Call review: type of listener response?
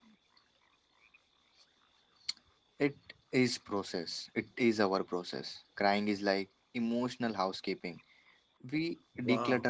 taking over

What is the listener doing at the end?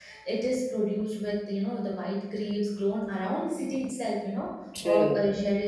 listening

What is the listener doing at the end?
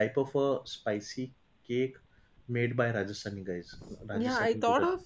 taking over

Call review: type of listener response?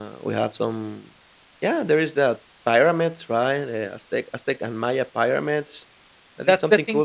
taking over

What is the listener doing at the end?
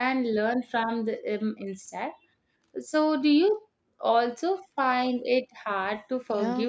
taking over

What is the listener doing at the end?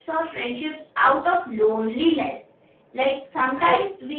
listening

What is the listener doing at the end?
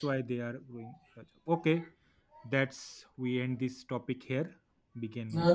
taking over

